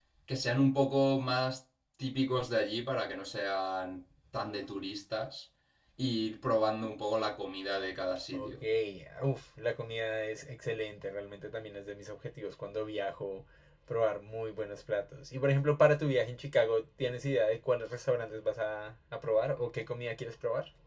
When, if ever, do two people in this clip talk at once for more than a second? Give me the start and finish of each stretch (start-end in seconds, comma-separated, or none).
none